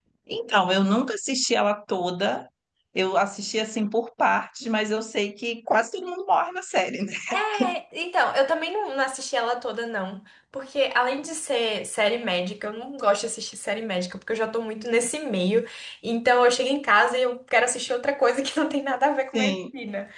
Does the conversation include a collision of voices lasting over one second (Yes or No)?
No